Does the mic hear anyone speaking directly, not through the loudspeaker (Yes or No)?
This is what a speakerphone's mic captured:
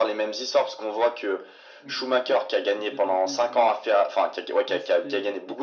Yes